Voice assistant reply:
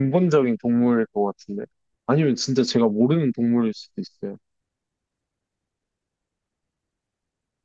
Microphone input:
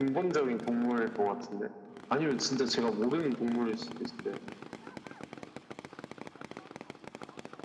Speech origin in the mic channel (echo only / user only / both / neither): echo only